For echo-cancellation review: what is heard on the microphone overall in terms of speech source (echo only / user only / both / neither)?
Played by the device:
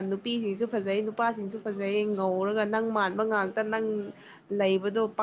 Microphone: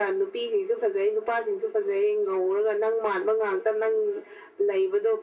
echo only